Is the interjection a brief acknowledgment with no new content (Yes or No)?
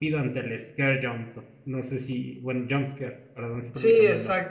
No